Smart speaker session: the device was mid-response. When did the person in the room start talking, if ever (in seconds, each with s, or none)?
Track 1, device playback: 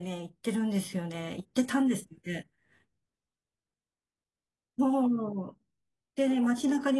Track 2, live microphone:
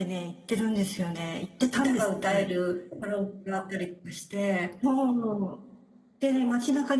1.7 s